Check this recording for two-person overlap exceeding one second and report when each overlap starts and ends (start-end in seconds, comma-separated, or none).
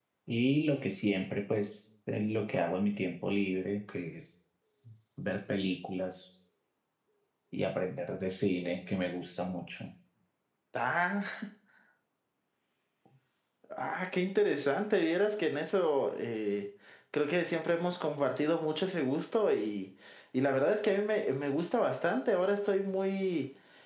none